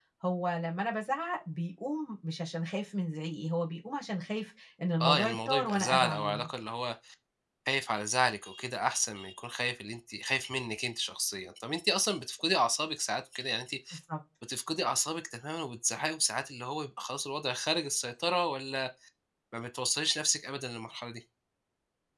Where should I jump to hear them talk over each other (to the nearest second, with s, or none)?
5 s